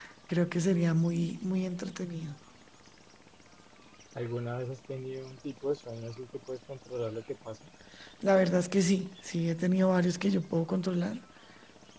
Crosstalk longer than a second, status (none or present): none